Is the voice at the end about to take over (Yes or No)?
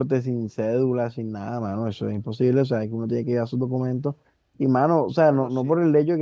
No